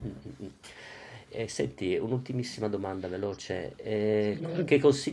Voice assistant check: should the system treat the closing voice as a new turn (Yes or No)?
No